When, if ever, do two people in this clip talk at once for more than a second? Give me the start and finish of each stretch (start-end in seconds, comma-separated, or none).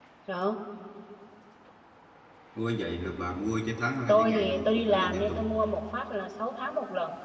4.1-5.4